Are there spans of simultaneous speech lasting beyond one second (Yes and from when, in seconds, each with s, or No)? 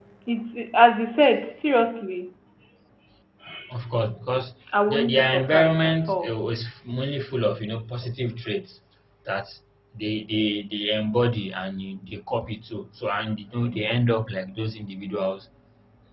Yes, from 4.7 s